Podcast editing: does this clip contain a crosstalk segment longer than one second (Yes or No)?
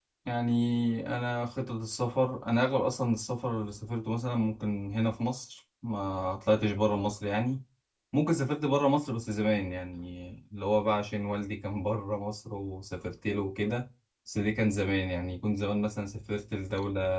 No